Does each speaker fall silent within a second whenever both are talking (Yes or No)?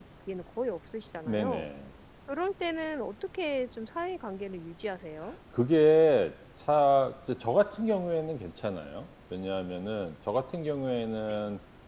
Yes